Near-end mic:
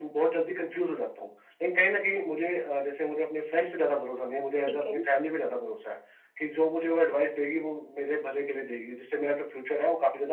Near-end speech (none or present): present